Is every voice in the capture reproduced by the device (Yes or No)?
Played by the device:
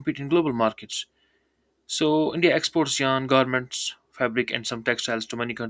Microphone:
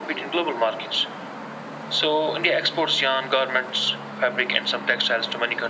Yes